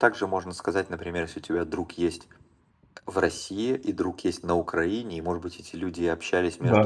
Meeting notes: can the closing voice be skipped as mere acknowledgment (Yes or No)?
Yes